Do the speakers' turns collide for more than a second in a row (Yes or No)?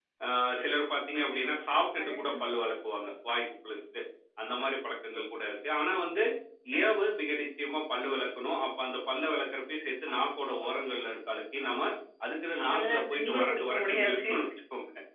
Yes